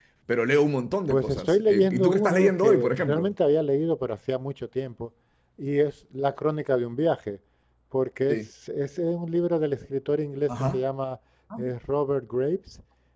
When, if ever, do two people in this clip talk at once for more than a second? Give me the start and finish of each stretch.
1.1-3.3

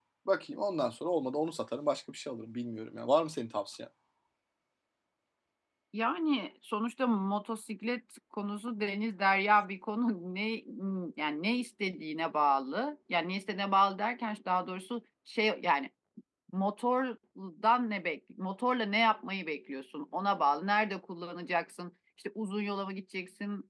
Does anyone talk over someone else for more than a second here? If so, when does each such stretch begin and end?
none

